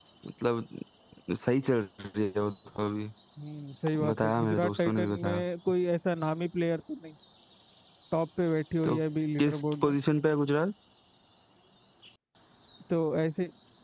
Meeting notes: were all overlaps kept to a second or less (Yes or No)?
No